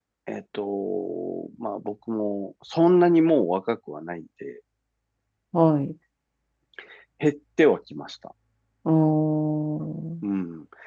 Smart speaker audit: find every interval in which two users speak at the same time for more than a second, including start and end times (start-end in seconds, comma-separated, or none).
none